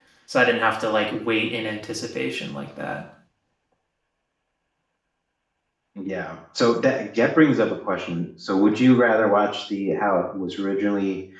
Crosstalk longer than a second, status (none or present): none